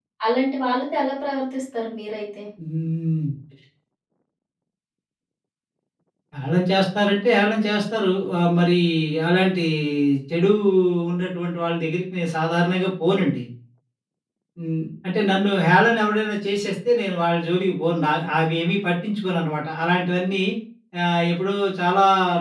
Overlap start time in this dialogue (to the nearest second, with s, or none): none